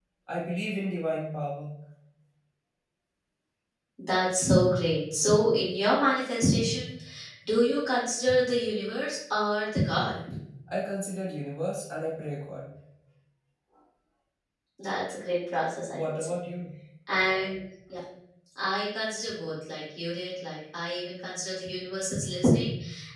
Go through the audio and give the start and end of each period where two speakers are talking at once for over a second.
none

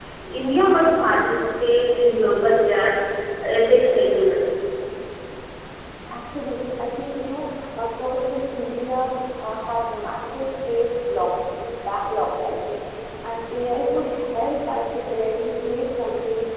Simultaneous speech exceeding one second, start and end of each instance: none

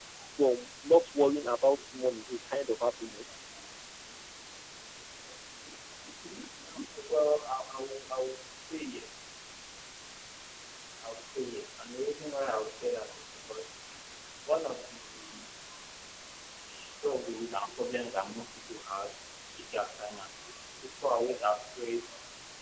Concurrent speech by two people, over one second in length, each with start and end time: none

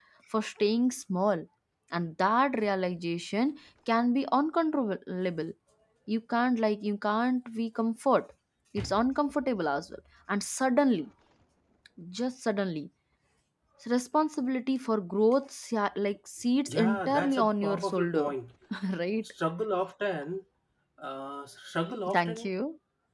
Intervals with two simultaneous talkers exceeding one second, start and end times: 16.7-18.3

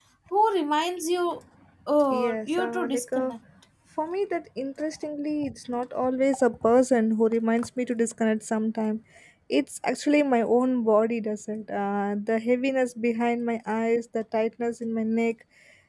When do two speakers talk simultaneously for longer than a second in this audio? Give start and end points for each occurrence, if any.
2.1-3.3

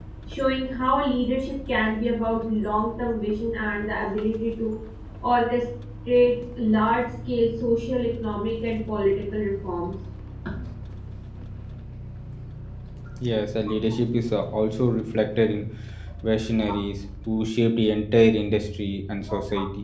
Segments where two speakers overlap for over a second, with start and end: none

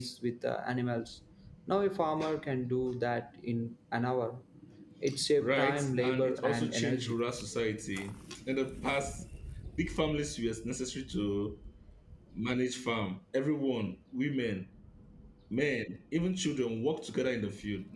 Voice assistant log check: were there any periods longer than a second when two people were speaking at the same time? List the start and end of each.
5.4-7.1

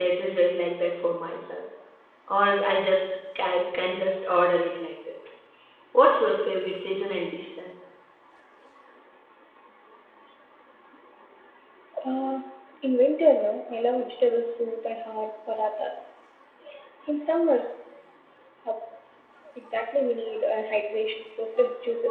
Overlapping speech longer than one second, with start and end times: none

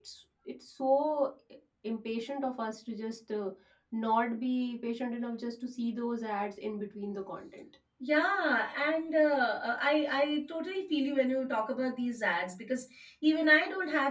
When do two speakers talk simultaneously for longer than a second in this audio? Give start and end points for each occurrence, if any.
none

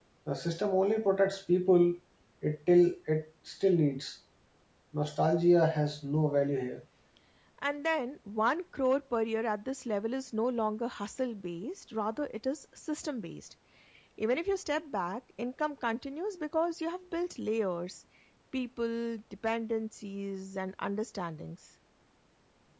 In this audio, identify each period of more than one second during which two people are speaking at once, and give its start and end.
none

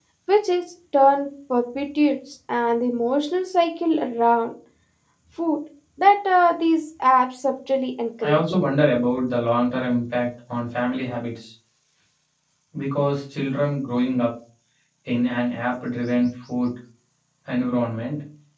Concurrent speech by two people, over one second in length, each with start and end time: none

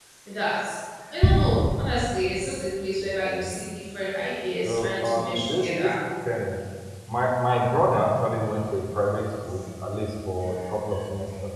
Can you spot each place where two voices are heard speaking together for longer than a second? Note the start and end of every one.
4.6-5.9

